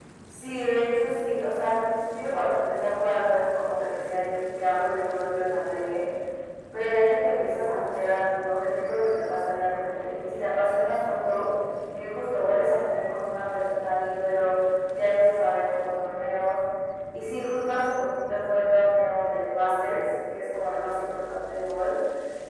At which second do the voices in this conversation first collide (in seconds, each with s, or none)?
none